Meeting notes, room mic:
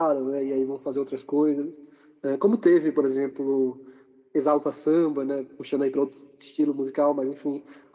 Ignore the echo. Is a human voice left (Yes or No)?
No